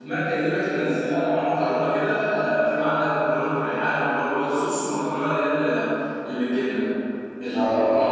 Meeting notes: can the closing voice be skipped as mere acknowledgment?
Yes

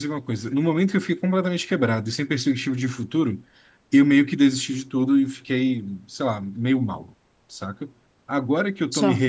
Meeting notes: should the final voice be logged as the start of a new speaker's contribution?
No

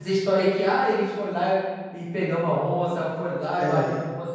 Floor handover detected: No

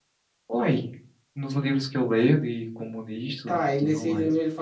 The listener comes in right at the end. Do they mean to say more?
Yes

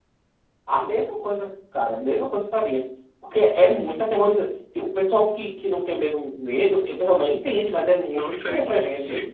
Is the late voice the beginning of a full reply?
Yes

